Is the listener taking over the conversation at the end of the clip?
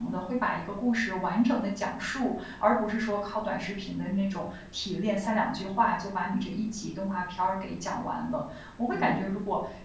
No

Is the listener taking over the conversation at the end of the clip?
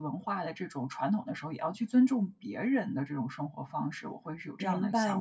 Yes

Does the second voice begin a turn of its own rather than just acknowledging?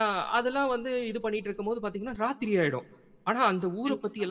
No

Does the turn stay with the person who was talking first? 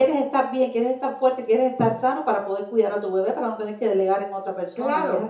No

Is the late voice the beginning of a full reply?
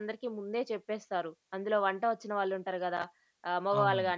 No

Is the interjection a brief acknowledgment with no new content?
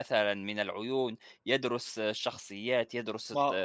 No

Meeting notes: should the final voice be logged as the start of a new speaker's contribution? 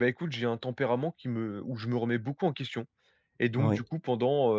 No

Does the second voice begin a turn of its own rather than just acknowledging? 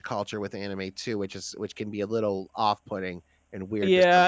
Yes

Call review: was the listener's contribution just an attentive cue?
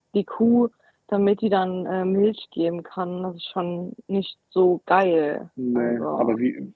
No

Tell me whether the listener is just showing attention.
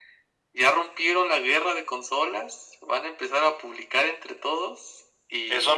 No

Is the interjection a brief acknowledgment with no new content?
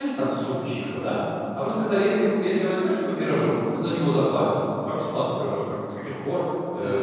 Yes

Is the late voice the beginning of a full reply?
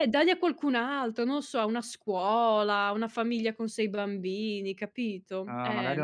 Yes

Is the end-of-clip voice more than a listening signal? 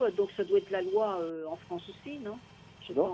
Yes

